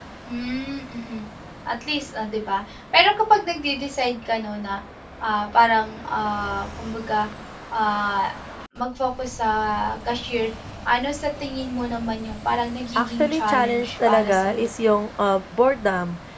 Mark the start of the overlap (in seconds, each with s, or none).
12.9 s